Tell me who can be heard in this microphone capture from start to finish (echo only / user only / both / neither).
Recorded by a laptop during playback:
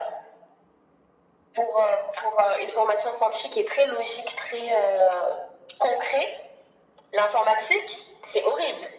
echo only